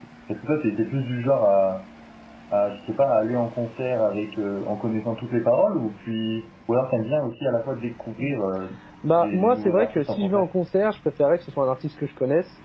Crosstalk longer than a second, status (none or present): present